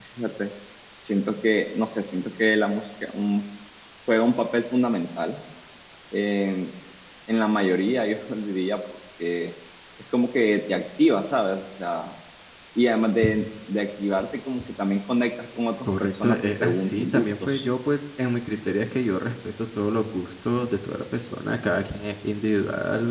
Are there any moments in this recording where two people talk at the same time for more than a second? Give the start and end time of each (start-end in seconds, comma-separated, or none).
15.8-17.6